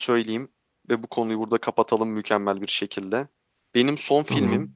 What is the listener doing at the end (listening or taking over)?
listening